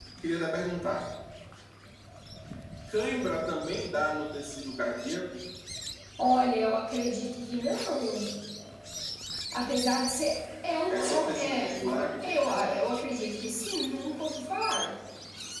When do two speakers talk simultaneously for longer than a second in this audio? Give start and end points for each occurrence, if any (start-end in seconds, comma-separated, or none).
10.9-12.9